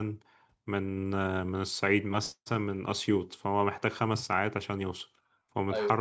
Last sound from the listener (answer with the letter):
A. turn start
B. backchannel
B